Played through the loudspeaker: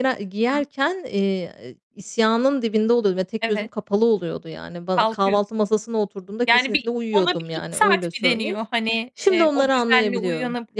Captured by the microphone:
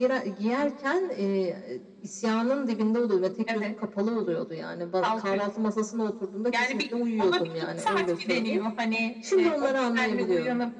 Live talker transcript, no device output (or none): none